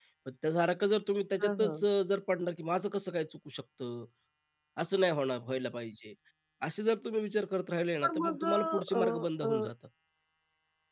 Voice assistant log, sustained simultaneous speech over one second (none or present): present